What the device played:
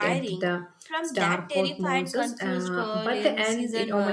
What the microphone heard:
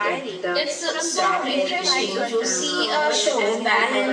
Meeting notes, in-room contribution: present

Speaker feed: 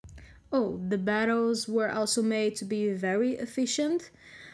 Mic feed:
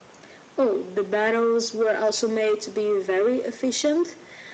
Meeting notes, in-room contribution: none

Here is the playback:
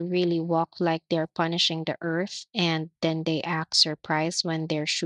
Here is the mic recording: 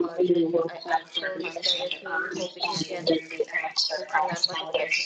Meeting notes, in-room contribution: present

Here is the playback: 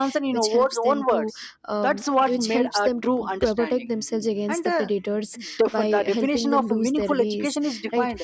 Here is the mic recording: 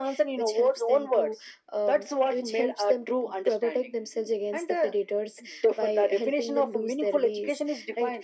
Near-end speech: none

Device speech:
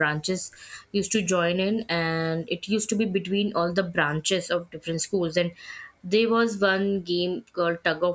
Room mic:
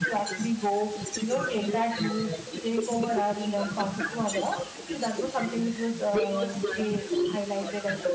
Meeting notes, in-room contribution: present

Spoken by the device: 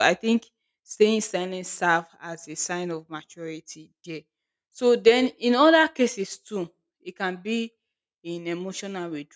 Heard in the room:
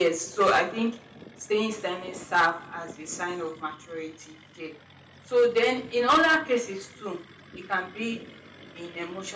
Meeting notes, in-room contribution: none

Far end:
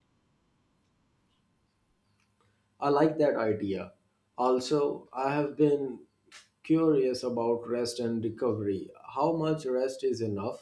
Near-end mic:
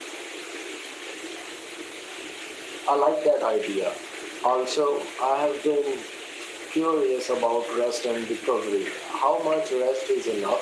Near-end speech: none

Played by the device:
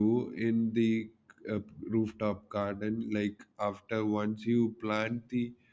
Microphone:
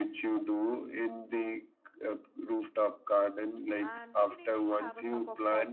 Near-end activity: present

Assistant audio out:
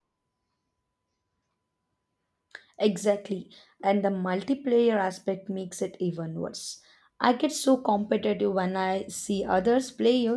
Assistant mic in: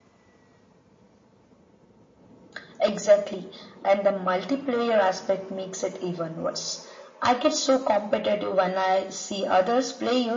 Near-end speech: none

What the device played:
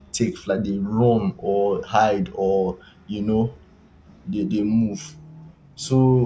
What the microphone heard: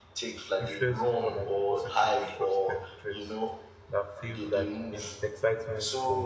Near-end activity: present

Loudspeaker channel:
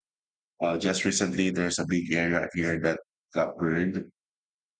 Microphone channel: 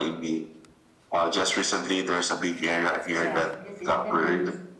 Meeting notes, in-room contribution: present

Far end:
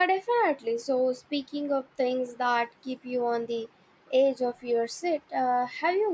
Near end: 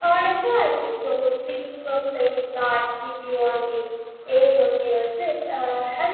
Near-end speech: none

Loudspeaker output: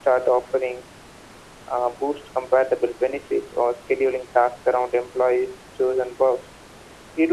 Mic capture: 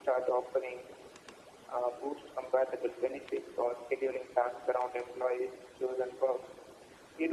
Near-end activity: none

